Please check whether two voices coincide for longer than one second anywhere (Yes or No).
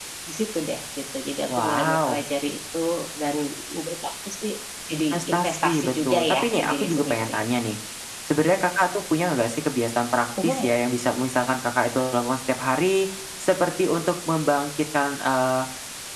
Yes